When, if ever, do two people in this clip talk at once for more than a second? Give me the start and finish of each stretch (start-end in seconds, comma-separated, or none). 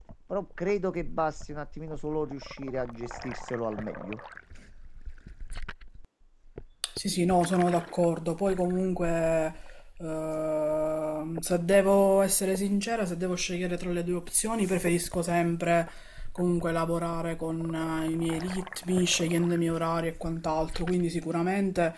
none